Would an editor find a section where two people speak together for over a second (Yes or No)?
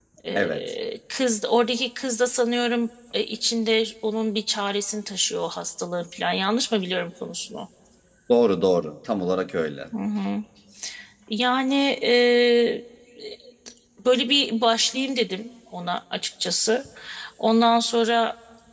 No